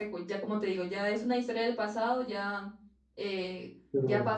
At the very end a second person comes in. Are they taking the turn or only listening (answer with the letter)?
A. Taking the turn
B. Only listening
B